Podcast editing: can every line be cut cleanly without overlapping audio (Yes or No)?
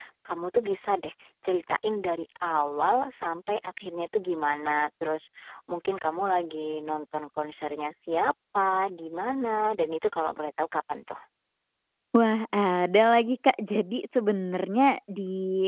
Yes